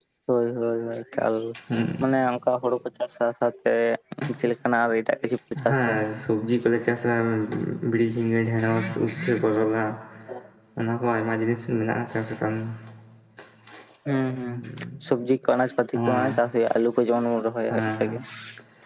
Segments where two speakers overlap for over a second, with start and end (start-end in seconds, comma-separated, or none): none